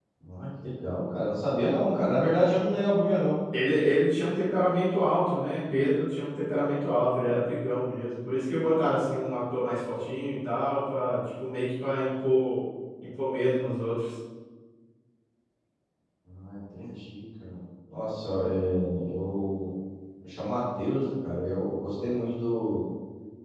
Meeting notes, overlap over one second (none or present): none